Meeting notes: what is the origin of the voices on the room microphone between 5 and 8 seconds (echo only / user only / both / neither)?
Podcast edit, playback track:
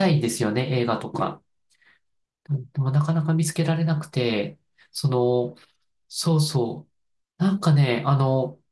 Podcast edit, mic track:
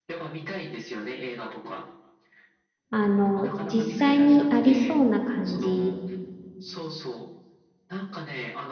both